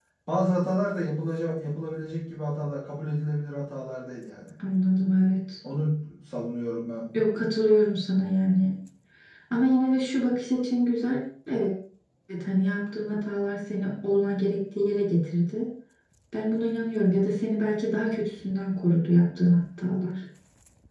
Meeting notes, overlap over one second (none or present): none